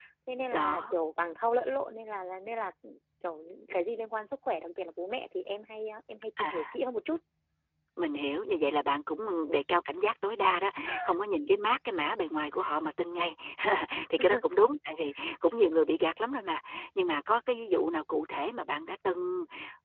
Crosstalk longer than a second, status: none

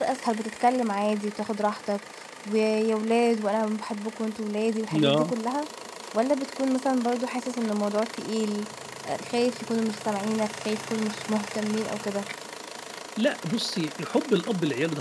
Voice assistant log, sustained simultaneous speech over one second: none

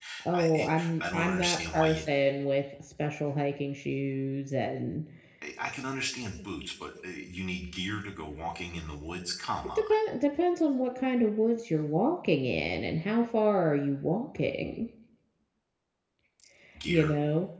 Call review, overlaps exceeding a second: present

